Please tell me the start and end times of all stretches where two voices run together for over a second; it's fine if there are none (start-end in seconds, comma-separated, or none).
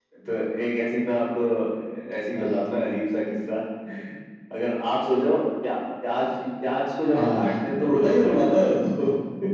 7.1-8.5